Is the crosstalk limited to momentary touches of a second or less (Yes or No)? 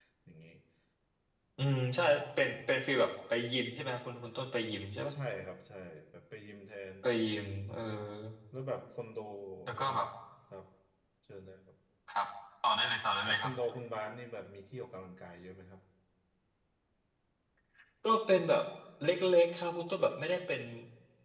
Yes